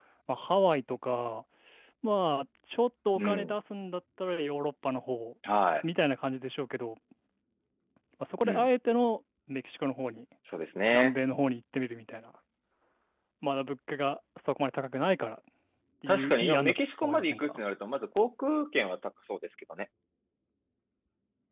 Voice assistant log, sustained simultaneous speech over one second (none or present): present